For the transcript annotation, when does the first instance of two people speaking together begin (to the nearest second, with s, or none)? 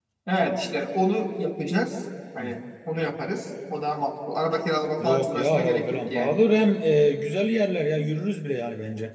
5 s